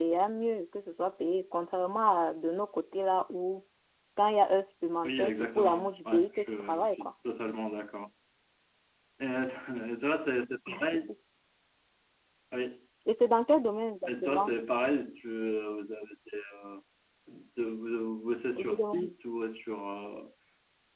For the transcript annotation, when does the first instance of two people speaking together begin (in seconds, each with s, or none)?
5.0 s